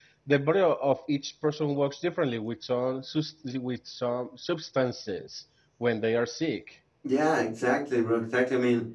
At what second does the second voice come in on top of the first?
none

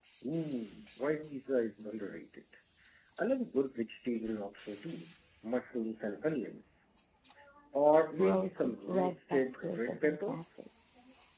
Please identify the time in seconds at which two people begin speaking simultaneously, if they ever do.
8.2 s

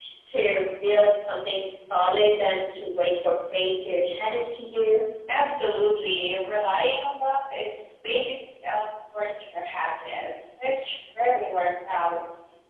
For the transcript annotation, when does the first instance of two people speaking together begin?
none

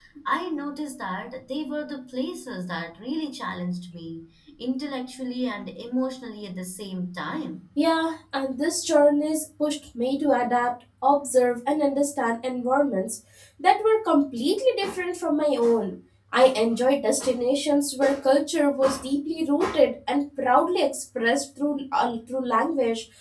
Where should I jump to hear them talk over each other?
none

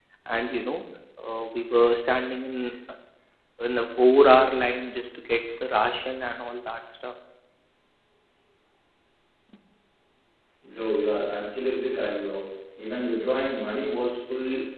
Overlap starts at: none

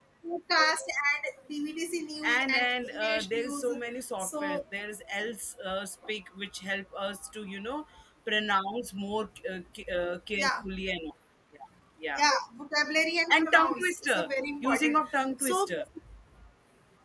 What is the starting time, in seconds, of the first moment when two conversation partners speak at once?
2.2 s

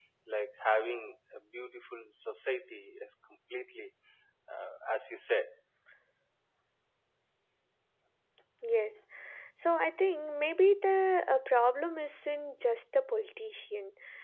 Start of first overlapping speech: none

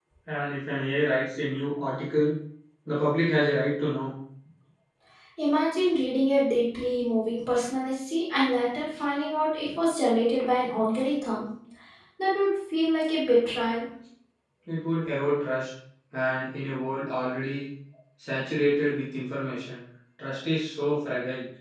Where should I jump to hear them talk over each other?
none

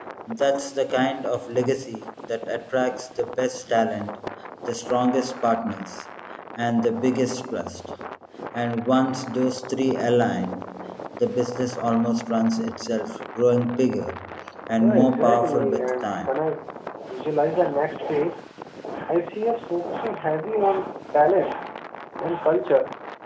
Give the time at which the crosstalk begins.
14.8 s

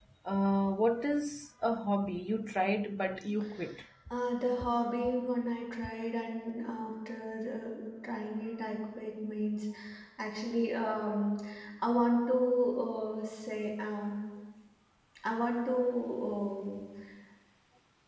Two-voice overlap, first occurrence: none

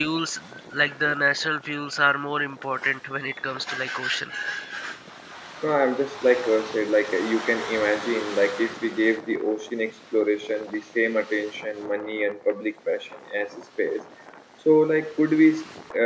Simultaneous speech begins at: none

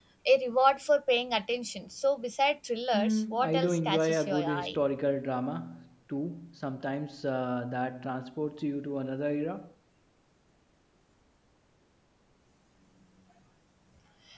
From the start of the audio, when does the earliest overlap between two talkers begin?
2.9 s

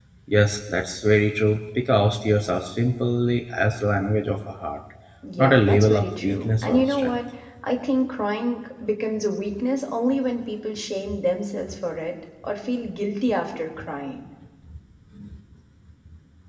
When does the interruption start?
5.4 s

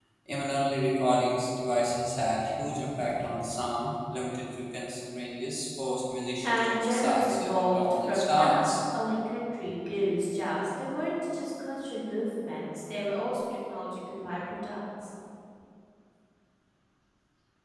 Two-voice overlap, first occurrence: 6.4 s

